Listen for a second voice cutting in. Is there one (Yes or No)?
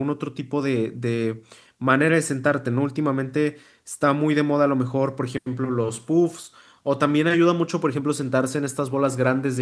No